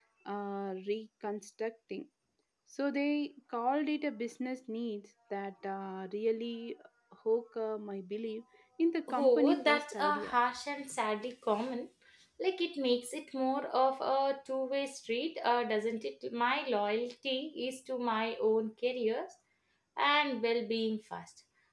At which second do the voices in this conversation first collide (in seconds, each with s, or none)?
9.1 s